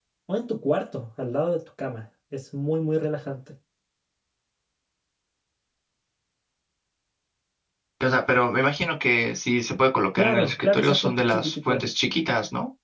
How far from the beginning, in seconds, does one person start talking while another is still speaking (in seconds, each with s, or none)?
10.2 s